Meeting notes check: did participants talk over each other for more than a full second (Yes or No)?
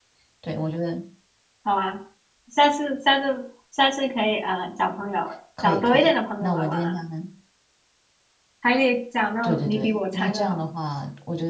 Yes